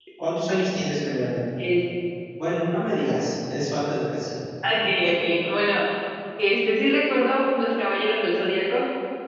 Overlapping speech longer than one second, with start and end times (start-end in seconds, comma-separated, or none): none